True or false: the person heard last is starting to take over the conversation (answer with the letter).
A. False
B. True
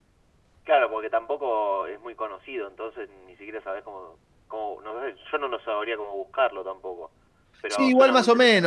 B